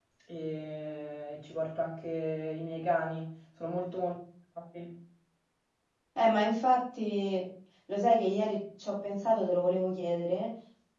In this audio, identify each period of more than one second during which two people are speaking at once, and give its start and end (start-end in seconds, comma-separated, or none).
none